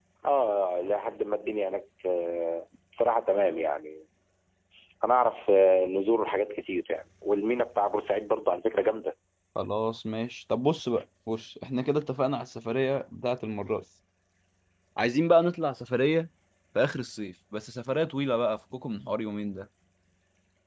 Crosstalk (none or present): none